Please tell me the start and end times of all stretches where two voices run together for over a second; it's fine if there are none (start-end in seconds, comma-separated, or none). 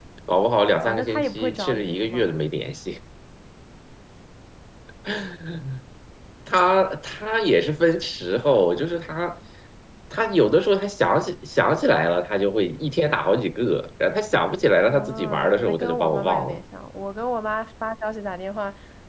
0.8-2.3, 14.8-16.6